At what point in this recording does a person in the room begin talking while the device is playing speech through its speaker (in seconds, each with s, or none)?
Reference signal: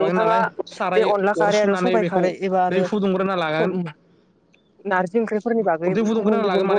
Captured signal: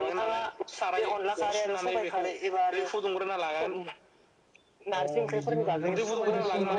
5.0 s